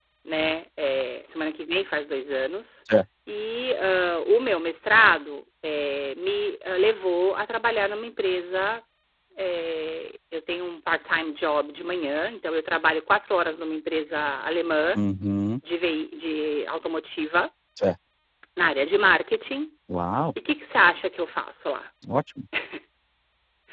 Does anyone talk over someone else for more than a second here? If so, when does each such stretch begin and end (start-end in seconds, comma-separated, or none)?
none